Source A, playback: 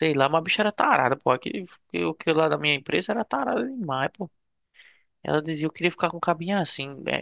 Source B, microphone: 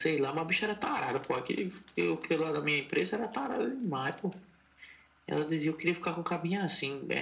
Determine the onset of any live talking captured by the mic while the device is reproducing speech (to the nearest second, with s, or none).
none